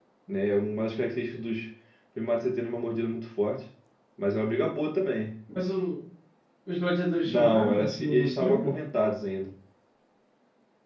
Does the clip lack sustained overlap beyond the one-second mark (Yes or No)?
No